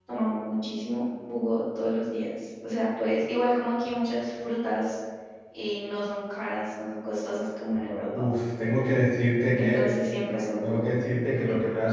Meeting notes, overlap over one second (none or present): none